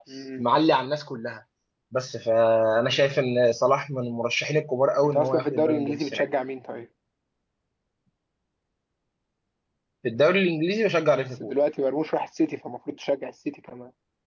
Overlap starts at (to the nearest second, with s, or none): 5 s